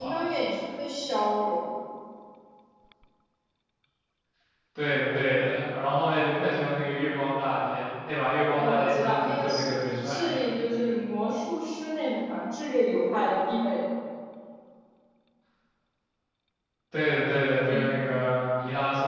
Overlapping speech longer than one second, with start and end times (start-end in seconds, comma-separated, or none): 8.5-10.2